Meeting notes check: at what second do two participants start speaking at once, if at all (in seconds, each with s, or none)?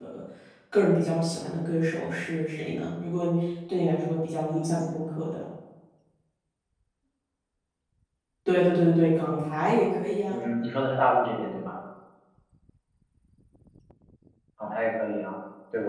none